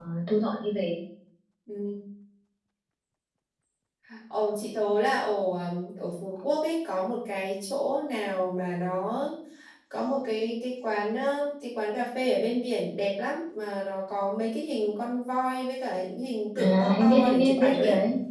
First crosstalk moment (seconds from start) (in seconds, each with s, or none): 16.5 s